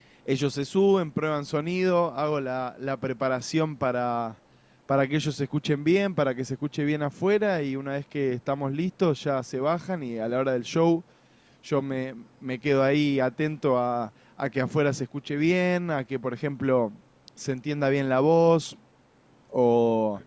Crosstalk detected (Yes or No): No